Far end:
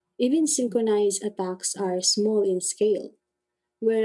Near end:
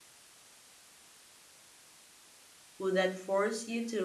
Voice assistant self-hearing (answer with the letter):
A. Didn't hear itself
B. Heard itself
A